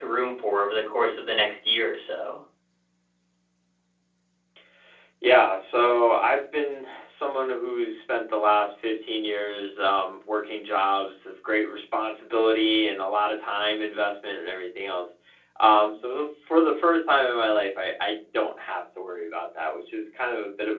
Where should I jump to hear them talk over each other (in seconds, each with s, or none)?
none